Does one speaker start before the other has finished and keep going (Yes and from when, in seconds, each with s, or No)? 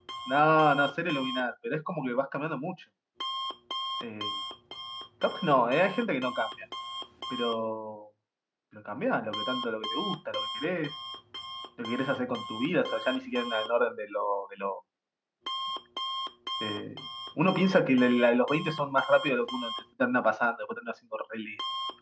No